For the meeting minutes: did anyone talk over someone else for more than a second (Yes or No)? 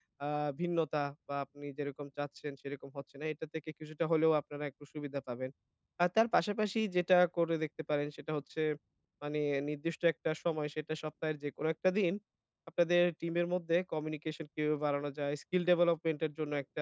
No